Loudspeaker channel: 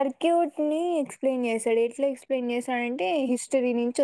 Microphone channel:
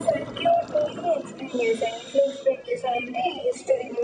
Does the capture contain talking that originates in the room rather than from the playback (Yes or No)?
No